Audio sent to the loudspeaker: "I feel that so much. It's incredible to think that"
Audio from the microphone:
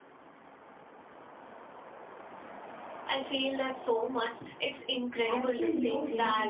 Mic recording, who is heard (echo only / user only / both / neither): both